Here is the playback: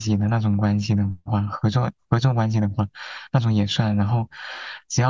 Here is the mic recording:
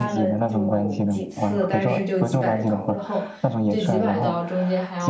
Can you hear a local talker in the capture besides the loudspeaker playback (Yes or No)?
Yes